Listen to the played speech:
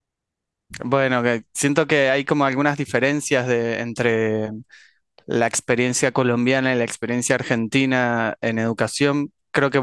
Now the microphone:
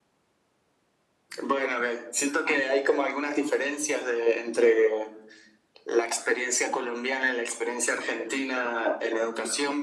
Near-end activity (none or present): none